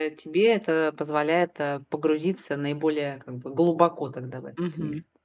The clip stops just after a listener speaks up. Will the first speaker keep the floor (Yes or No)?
No